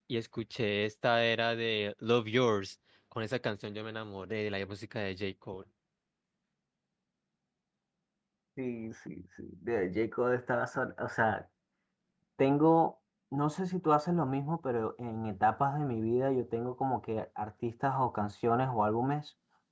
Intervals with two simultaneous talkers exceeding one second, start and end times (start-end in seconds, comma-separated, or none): none